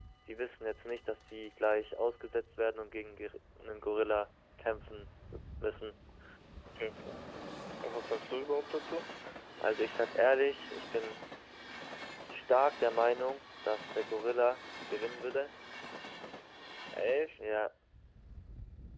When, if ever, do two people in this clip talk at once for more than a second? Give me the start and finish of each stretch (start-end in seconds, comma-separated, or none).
none